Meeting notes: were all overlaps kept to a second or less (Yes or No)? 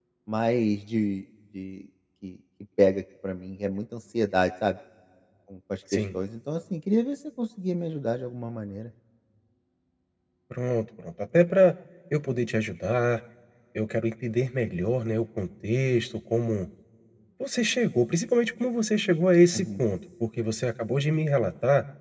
Yes